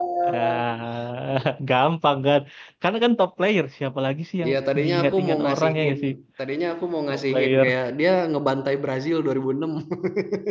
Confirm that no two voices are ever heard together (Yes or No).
No